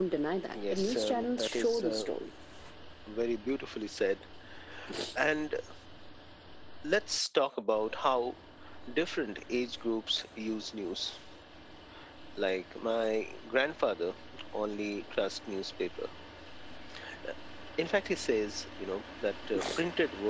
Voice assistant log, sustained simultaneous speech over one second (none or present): present